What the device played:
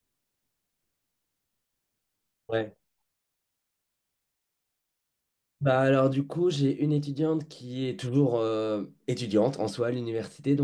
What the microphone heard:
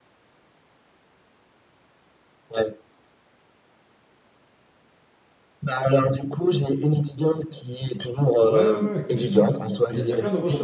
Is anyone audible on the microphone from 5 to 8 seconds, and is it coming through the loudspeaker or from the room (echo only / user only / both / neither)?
echo only